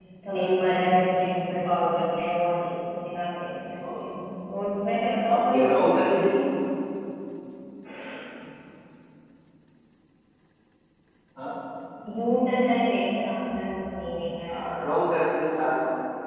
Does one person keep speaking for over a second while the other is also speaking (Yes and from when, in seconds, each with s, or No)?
No